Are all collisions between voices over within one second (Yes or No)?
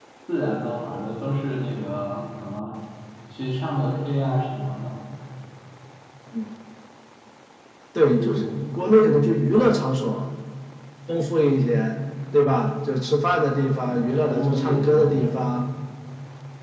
No